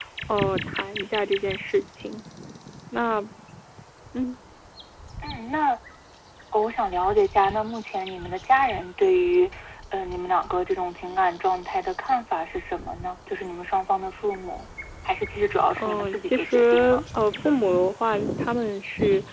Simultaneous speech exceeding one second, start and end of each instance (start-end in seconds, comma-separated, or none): 15.8-17.0